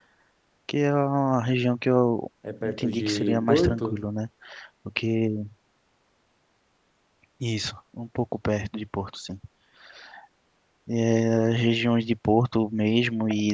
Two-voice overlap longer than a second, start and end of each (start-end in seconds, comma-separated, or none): 2.6-4.0